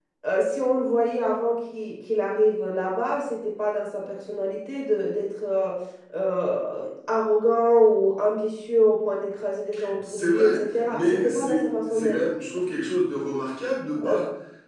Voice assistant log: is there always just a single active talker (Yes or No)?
No